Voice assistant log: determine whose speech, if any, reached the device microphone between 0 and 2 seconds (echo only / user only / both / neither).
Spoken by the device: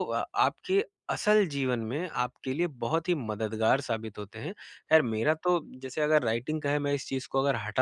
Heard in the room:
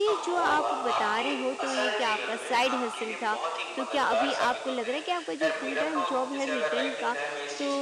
both